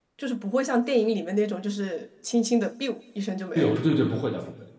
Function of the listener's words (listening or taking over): taking over